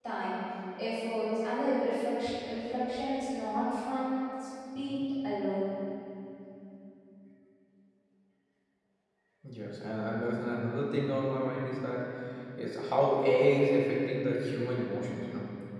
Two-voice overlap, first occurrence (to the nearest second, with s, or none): none